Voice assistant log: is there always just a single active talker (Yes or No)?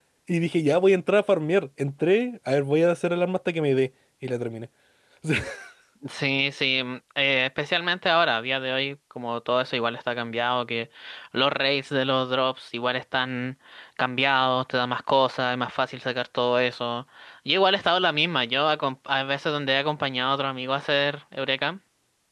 Yes